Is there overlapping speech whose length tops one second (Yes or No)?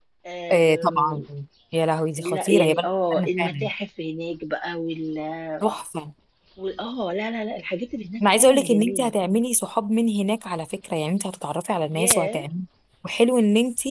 Yes